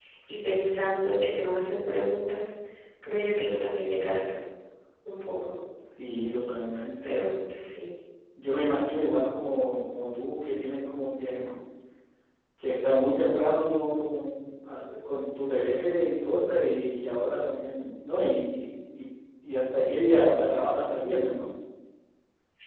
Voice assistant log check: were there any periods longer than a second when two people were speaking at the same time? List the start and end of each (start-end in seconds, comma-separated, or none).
none